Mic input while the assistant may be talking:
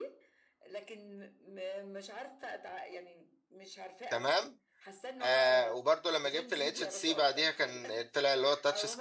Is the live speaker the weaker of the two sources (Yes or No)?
No